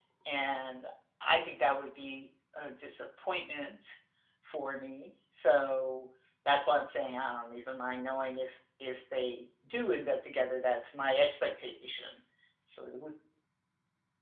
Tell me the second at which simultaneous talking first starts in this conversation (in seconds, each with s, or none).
none